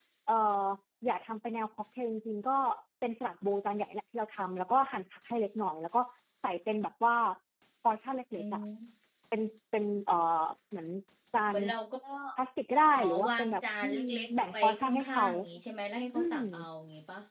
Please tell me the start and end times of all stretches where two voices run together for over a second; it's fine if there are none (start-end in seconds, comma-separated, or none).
12.9-15.2